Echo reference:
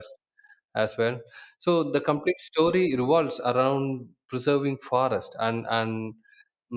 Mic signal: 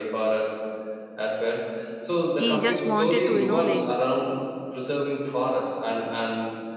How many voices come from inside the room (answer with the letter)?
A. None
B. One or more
B